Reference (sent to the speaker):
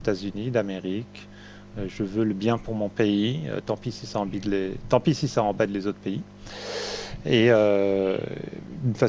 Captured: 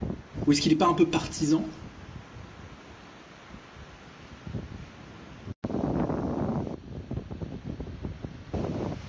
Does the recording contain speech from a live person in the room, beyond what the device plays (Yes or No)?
Yes